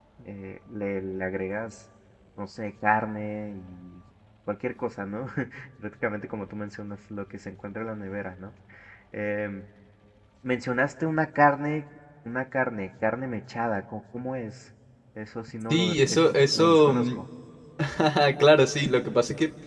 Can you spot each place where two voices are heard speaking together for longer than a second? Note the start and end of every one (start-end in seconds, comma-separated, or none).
15.7-16.9